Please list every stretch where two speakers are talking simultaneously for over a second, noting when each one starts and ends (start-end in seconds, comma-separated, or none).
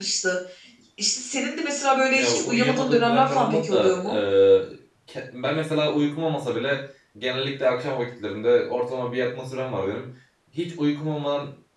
2.1-3.9